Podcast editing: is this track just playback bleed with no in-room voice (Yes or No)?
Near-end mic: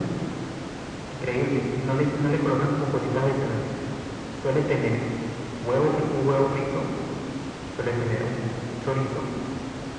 Yes